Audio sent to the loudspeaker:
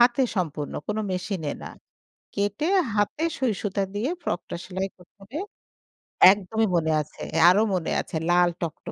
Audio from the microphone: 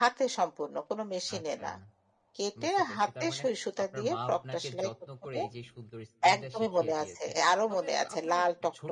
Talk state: both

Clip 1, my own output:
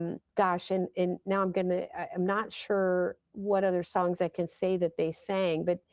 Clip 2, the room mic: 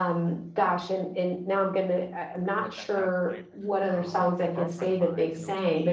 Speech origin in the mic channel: both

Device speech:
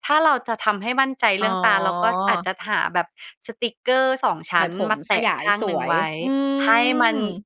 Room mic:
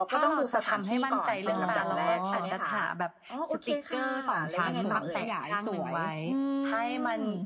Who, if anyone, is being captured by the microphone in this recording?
both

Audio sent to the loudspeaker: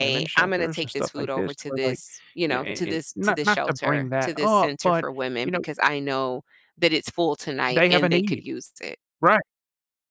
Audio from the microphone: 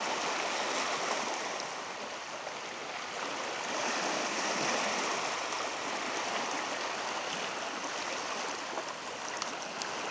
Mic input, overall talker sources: neither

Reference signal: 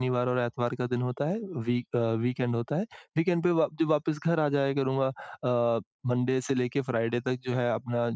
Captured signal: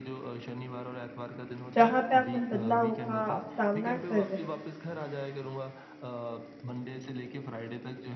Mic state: both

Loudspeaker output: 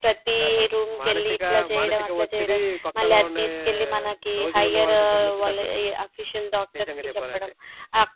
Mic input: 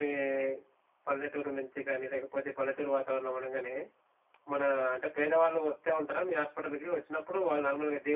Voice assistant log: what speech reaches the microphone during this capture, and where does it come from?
user only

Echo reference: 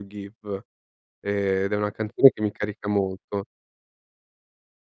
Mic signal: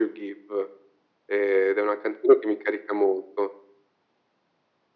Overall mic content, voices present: echo only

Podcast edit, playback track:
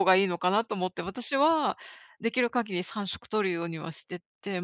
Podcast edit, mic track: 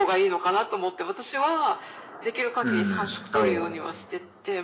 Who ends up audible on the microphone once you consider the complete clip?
both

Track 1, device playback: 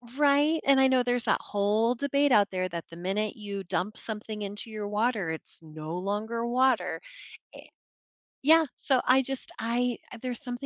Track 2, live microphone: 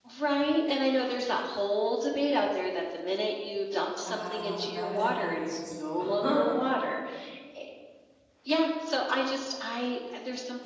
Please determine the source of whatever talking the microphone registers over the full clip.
both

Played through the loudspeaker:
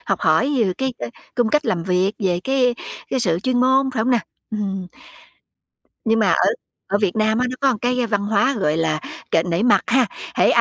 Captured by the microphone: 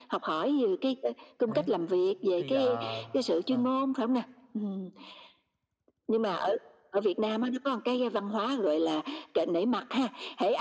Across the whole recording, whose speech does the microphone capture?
both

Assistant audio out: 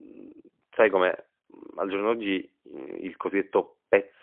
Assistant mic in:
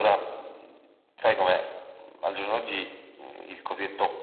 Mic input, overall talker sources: echo only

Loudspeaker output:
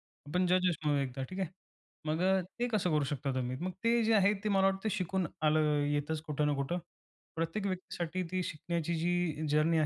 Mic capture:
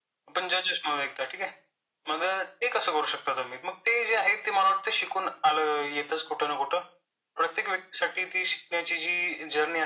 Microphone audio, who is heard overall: echo only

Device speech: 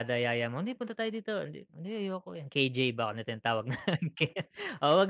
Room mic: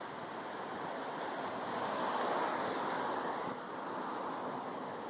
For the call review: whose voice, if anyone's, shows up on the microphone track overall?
neither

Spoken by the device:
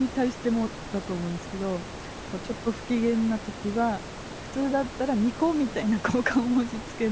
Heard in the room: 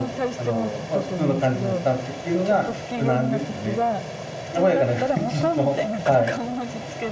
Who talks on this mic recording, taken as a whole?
both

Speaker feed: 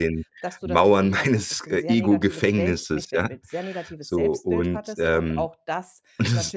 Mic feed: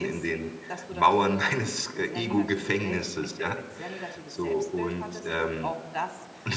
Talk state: echo only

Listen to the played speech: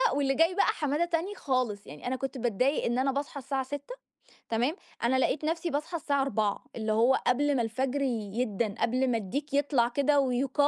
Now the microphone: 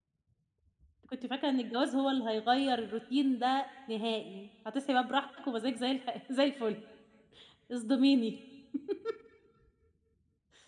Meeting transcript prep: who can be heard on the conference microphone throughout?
user only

